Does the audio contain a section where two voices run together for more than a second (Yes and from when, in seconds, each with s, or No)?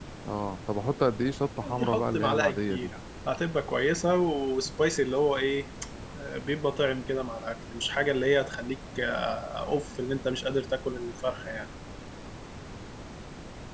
Yes, from 1.6 s